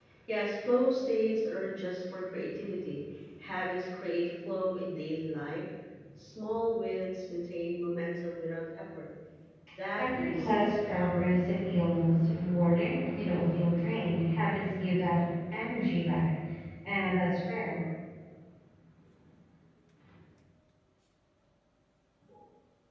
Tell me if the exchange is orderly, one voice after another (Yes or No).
No